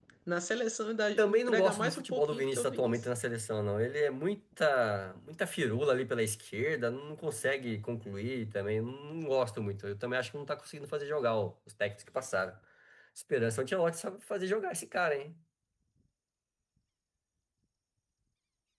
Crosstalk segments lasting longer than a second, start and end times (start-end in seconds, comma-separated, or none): 1.2-3.0